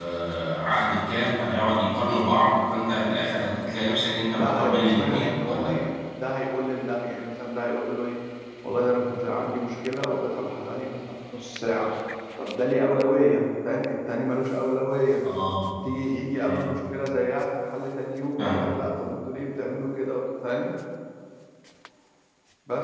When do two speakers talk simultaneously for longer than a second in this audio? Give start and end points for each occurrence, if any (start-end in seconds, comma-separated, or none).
4.4-5.8